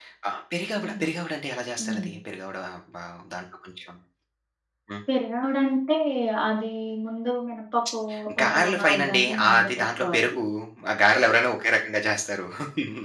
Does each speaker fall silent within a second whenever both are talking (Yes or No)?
No